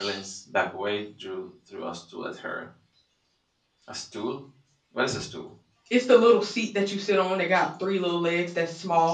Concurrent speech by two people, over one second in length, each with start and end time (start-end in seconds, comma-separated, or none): none